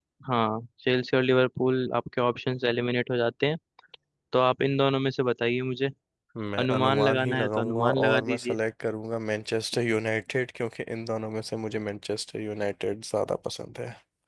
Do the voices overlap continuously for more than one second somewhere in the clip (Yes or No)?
Yes